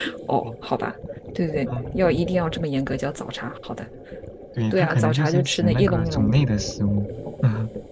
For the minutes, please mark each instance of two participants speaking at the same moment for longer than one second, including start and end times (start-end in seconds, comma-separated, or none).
4.7-6.4